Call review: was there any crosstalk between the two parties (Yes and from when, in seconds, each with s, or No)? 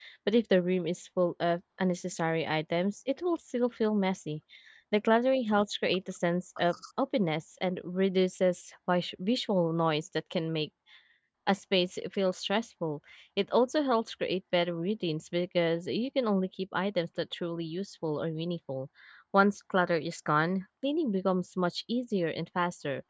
No